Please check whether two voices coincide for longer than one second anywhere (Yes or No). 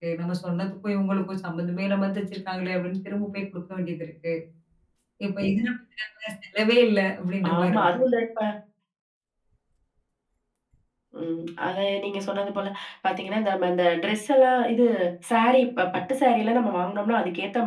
No